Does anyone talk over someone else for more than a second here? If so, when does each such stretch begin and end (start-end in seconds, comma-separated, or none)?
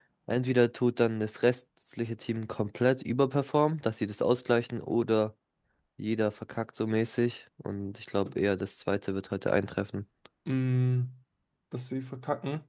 none